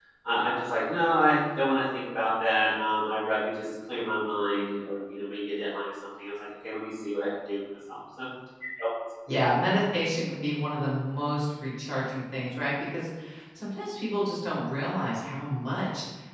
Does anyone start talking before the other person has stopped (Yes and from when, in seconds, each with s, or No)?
No